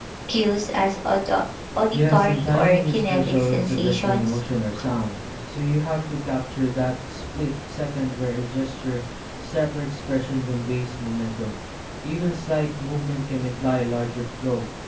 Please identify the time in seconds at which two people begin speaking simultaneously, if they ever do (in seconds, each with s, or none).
1.9 s